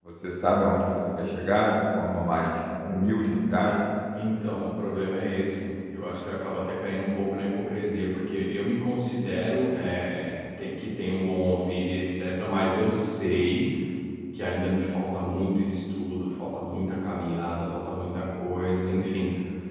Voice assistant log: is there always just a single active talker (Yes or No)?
Yes